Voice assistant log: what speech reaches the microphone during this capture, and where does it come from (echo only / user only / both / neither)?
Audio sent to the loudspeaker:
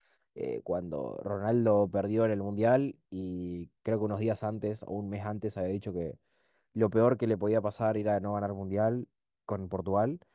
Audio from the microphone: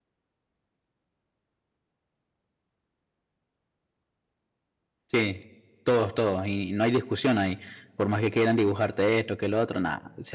user only